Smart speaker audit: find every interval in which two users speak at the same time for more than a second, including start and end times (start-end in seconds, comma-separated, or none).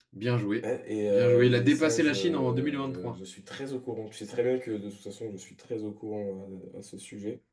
1.1-3.1